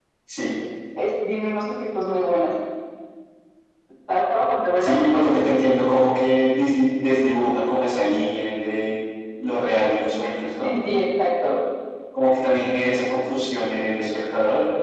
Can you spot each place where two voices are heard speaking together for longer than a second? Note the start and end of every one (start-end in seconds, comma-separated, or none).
none